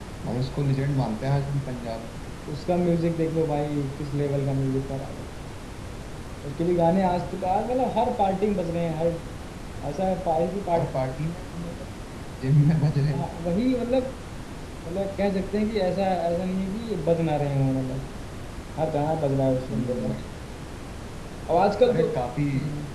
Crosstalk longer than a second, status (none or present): none